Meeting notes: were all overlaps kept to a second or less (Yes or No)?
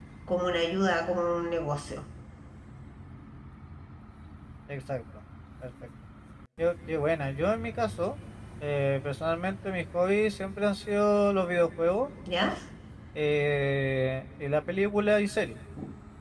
Yes